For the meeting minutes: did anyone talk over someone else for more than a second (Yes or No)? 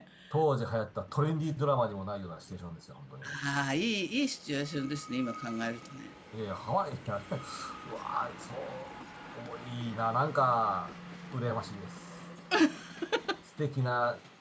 No